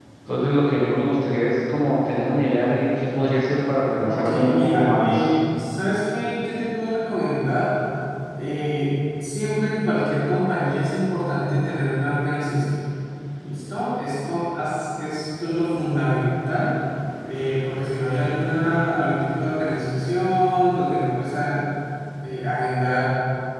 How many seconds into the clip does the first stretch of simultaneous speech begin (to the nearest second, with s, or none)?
4 s